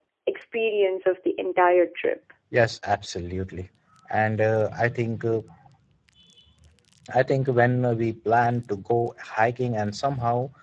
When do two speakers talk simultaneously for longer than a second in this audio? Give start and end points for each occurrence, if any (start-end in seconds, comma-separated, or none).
none